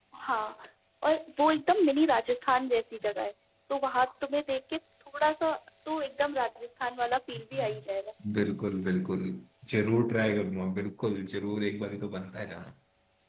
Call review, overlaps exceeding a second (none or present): none